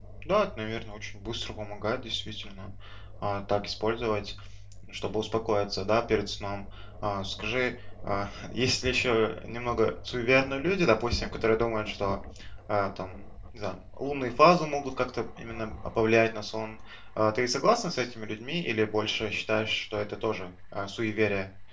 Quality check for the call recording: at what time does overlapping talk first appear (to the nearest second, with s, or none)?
none